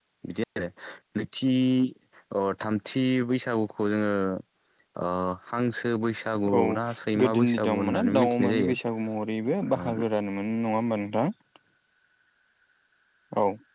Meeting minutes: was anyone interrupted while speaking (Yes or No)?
Yes